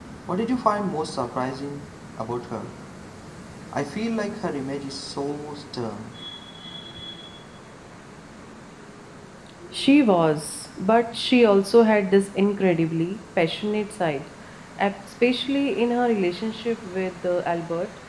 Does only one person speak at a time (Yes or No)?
Yes